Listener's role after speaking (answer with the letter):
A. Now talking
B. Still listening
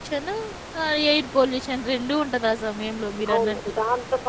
A